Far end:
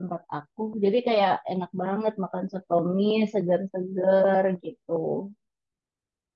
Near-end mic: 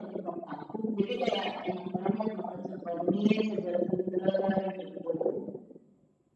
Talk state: echo only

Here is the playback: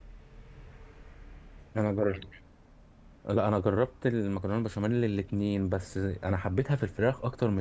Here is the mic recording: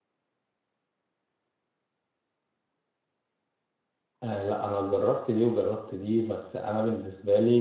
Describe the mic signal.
user only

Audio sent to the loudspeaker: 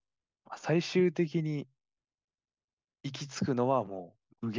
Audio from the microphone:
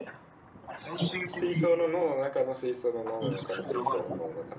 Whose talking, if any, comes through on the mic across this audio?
both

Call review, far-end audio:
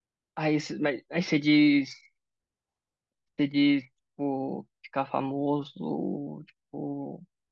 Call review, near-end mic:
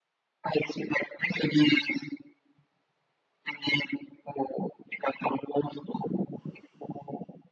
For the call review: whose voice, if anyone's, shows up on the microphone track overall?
echo only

